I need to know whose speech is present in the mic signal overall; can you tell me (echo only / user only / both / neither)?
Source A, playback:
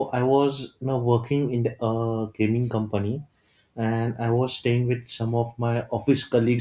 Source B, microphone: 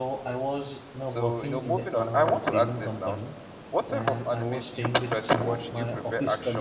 both